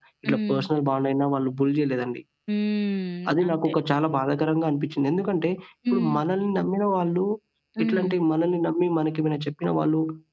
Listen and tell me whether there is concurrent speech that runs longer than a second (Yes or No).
No